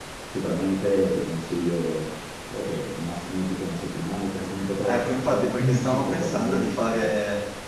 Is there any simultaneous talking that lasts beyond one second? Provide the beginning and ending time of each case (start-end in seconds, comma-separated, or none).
4.8-7.1